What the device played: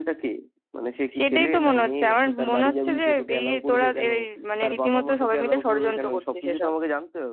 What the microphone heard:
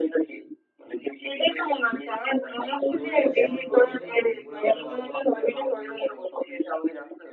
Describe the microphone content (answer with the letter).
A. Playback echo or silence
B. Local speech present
B